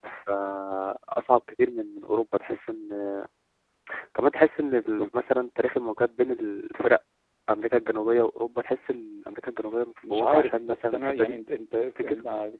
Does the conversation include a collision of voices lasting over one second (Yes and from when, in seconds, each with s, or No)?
Yes, from 10.1 s